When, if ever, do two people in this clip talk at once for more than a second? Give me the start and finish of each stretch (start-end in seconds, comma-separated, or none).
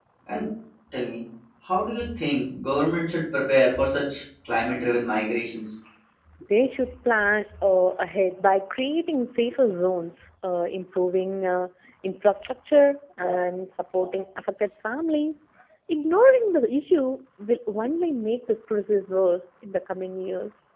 none